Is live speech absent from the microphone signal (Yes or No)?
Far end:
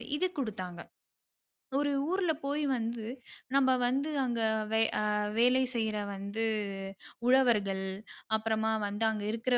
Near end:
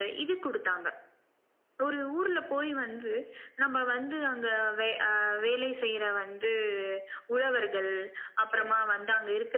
No